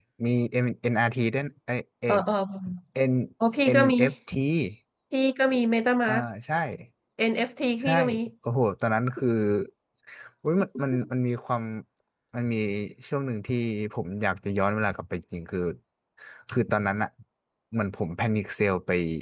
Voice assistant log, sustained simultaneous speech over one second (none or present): none